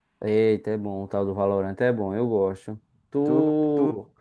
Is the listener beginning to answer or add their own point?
Yes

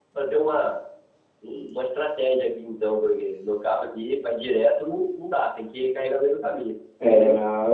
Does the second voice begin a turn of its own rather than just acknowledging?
Yes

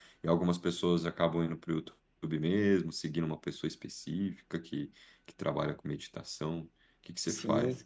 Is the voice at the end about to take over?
Yes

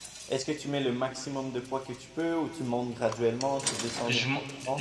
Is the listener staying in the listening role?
No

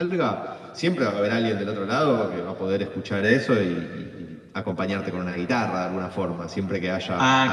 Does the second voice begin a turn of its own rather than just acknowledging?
No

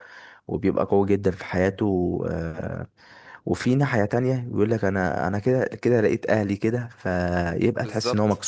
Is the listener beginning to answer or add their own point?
Yes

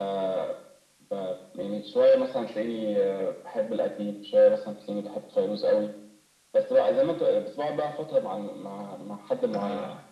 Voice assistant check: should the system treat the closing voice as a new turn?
No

